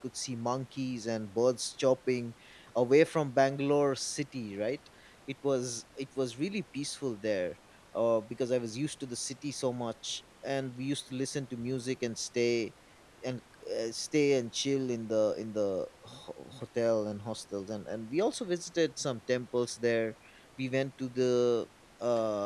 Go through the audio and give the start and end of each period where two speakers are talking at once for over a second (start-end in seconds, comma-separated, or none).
none